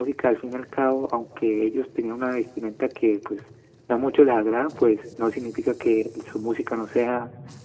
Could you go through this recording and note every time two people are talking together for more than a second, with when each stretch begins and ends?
none

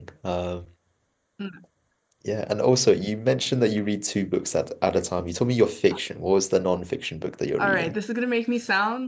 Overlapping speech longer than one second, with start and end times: none

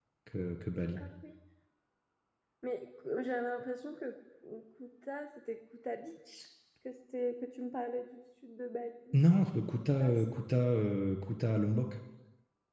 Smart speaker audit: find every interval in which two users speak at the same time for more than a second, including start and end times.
none

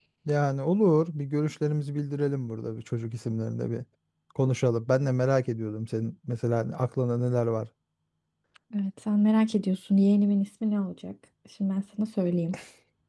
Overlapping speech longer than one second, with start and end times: none

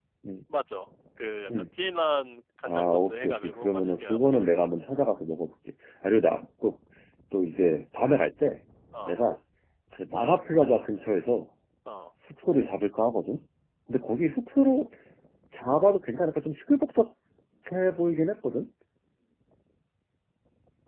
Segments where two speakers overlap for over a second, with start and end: 2.6-4.7

